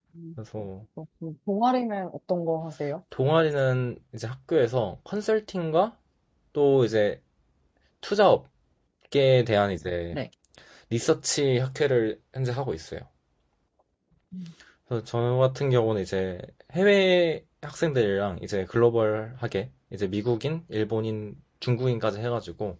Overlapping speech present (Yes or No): No